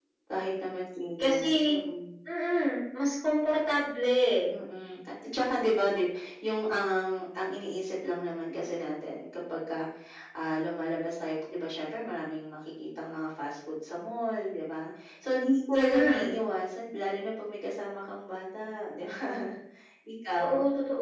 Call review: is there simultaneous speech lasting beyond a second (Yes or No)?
No